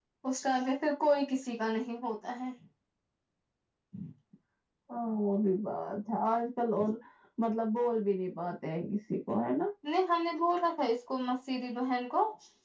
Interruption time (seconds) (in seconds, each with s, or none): none